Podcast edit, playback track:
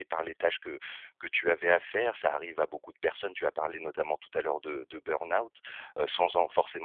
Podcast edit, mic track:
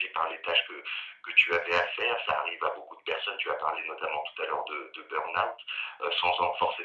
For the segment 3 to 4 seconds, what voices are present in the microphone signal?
echo only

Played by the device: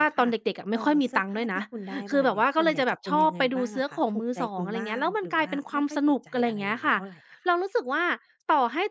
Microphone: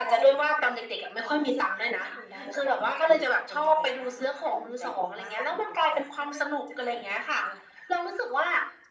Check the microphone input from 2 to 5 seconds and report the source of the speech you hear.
echo only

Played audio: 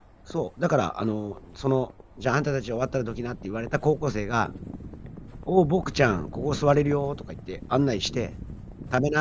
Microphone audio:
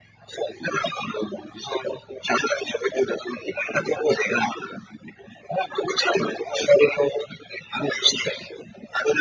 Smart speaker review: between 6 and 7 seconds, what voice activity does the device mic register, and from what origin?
echo only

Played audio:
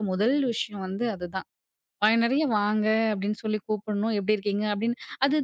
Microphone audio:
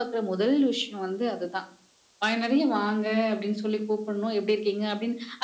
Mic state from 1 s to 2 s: echo only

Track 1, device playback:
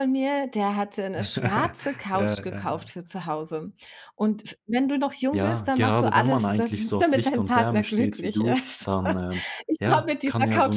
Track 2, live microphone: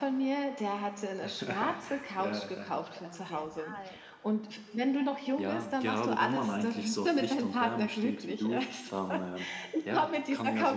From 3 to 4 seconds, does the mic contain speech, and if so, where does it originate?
both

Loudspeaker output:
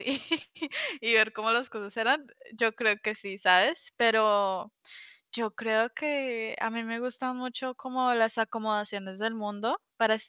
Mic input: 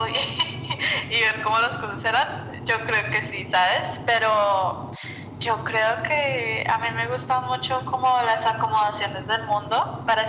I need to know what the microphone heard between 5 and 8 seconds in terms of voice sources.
echo only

